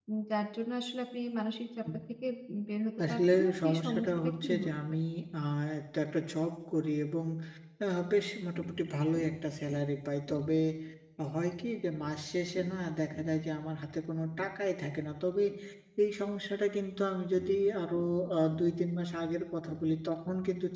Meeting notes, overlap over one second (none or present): present